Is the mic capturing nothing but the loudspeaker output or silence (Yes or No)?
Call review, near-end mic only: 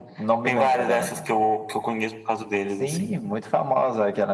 Yes